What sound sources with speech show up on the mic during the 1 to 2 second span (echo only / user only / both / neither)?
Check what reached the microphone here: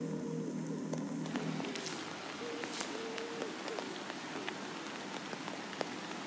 neither